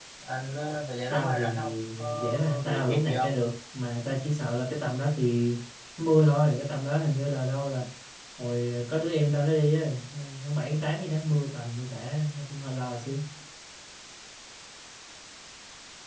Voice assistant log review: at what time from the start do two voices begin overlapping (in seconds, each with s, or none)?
1.1 s